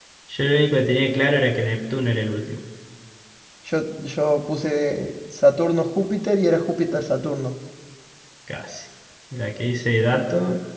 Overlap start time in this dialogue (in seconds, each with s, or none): none